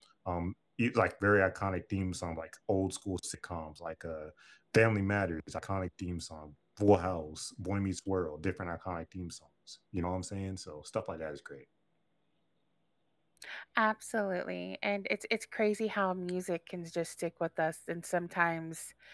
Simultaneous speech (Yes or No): No